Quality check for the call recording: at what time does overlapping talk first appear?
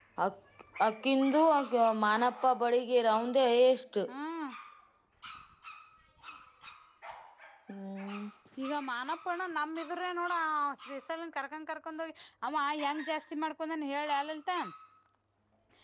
none

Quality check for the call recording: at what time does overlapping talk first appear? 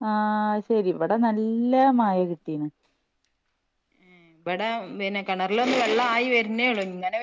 none

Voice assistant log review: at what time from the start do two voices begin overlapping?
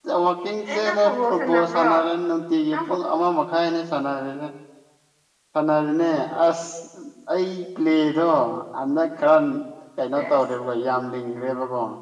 0.7 s

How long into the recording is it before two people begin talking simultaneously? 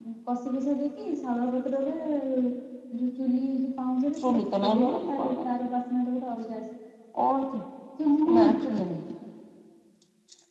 4.2 s

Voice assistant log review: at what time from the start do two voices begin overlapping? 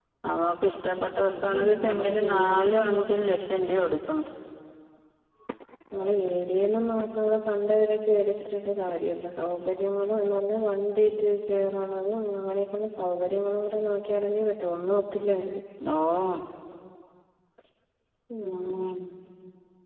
1.4 s

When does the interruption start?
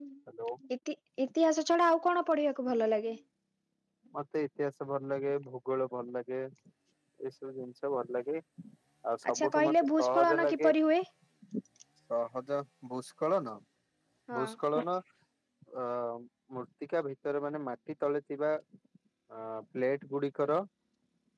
9.3 s

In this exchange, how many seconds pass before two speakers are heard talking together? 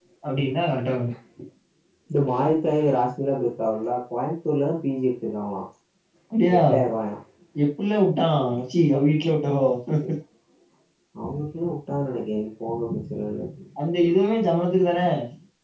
none

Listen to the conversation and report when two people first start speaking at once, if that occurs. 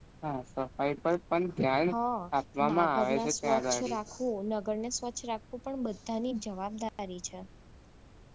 2.7 s

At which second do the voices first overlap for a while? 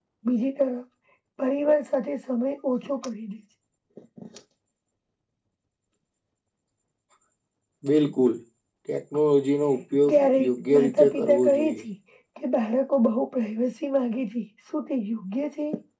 10.1 s

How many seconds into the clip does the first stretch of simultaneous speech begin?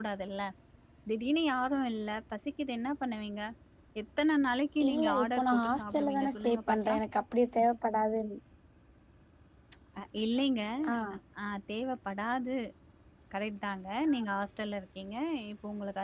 4.9 s

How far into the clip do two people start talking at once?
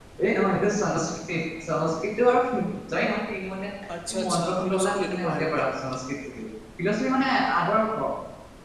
4.1 s

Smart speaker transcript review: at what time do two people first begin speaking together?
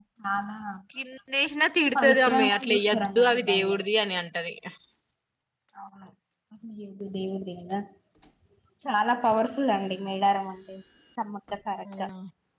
1.9 s

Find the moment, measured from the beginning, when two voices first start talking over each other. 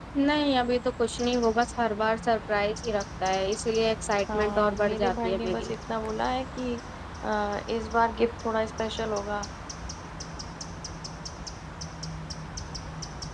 4.3 s

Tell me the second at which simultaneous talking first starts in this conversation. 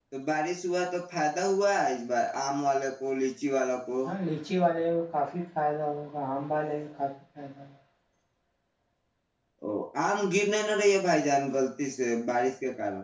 none

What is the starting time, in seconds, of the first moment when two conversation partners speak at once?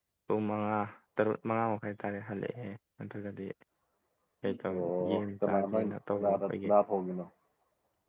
4.7 s

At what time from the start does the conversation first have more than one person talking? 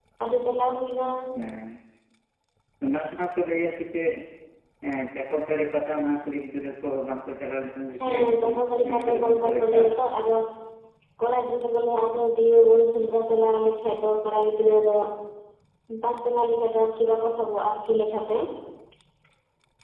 8.0 s

